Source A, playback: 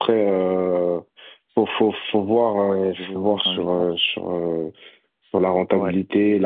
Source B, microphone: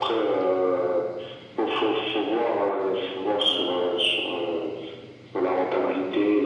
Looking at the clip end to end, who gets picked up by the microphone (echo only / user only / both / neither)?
echo only